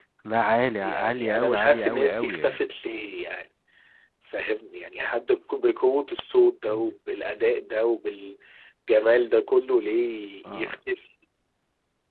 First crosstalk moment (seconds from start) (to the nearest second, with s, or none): 1 s